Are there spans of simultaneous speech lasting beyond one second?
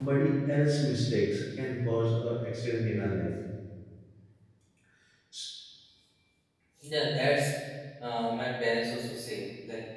No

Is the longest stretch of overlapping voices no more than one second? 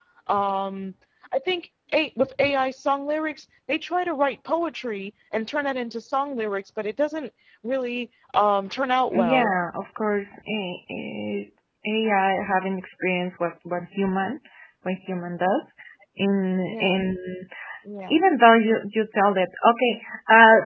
Yes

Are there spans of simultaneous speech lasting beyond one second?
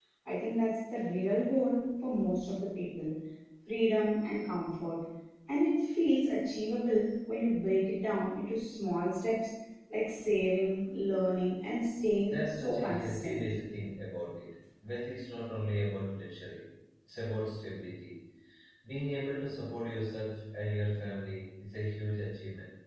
Yes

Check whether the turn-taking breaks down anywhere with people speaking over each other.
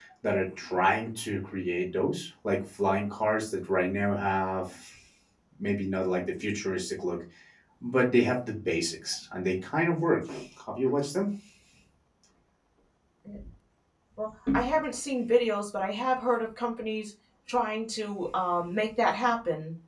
No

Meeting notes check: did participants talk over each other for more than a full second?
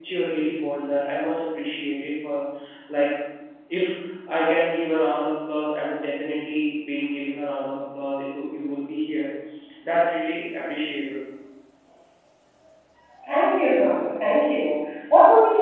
No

